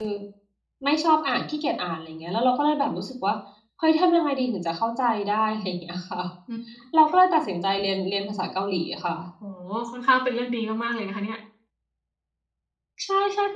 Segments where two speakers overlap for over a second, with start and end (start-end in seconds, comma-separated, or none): none